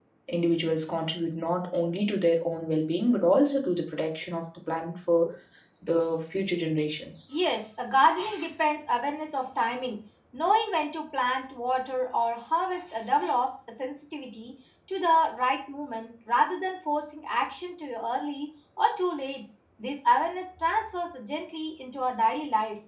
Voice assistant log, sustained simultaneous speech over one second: none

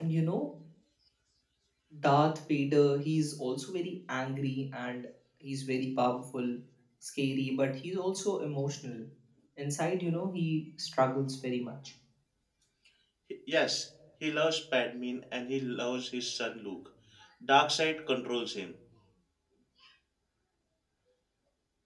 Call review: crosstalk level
none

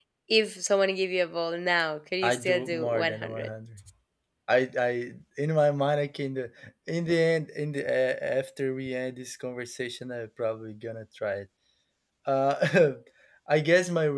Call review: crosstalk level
present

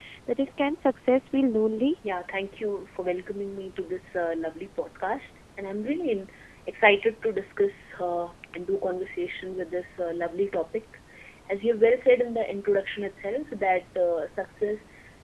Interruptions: none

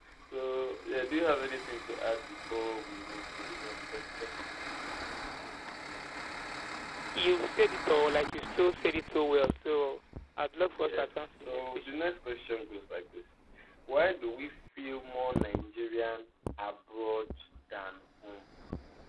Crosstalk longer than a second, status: present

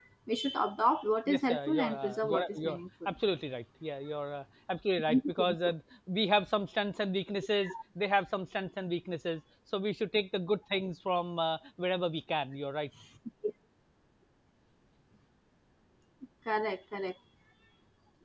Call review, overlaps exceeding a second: present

